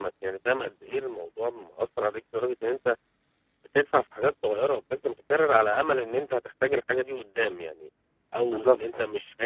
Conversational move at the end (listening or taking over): listening